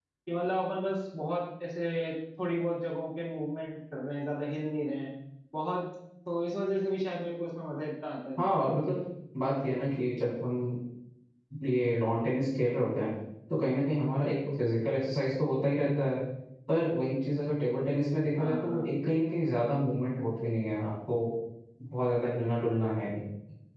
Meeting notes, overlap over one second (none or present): none